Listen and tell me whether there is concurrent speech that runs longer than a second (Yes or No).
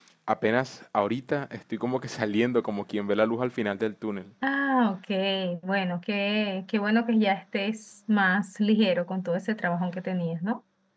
No